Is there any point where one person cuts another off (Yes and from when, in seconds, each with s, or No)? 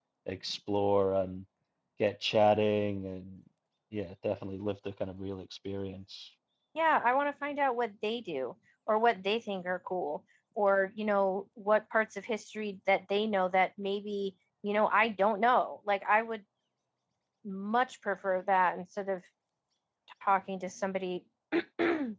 No